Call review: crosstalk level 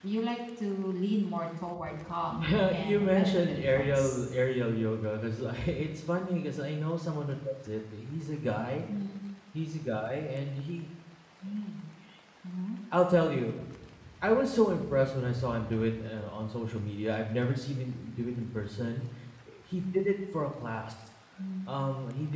present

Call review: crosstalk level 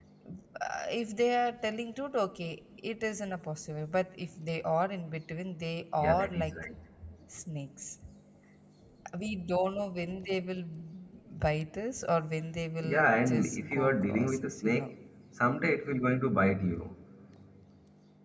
present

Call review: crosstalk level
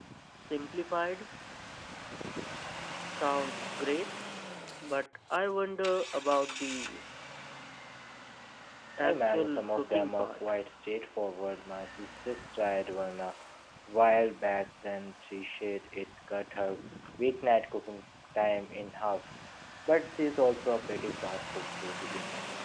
present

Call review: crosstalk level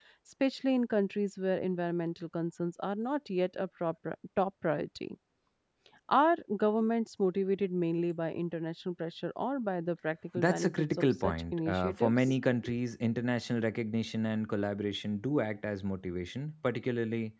present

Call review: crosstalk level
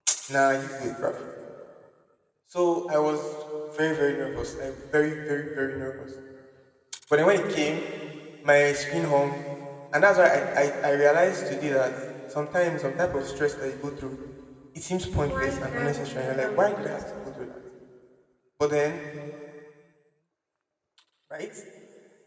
present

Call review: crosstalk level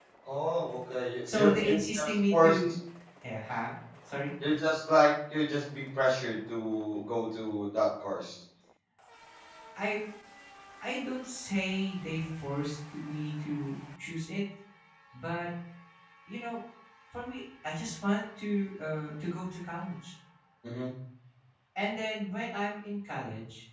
present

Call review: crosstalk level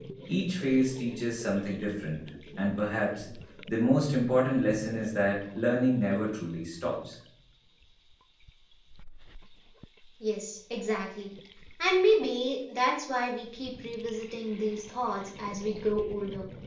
none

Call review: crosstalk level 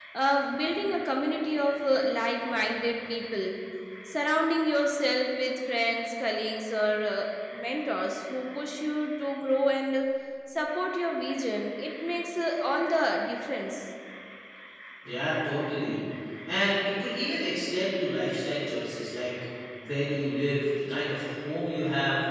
none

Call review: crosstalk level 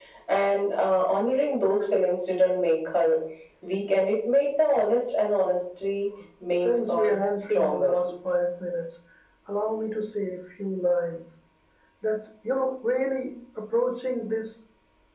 present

